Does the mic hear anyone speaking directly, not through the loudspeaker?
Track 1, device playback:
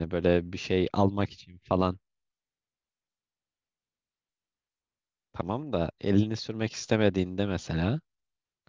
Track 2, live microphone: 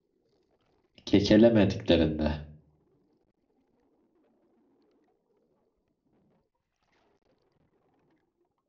Yes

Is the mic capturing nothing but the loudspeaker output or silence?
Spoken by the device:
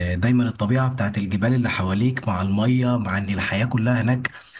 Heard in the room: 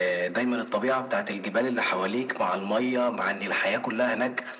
Yes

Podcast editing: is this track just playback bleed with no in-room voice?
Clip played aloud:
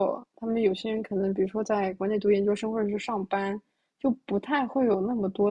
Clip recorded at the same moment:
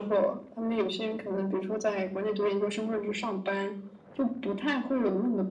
Yes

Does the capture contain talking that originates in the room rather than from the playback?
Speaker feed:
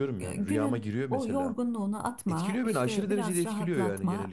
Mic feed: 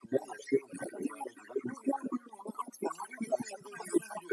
No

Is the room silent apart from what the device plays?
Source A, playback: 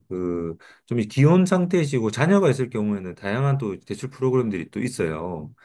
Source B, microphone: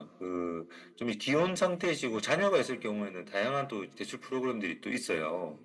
Yes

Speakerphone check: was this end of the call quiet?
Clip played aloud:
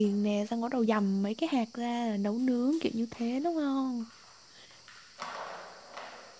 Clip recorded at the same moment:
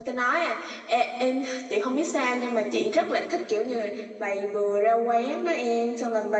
No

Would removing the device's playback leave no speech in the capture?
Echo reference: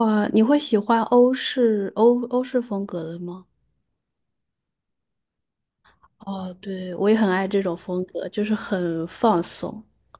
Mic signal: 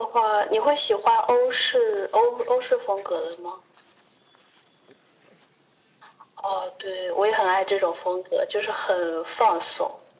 Yes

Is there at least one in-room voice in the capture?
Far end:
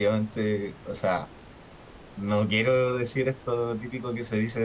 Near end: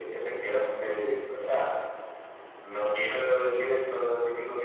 No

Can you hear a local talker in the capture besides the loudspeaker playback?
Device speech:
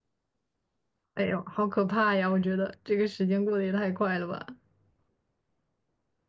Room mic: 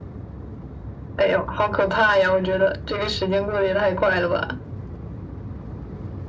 No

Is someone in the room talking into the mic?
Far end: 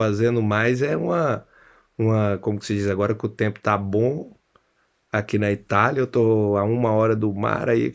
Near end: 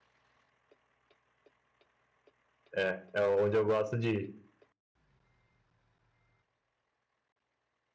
Yes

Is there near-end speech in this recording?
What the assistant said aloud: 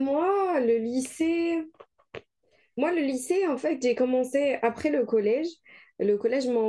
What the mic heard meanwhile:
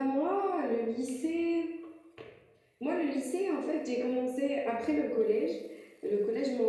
No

